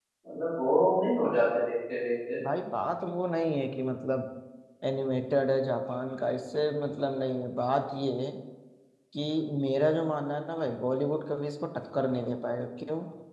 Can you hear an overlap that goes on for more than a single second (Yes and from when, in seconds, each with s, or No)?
No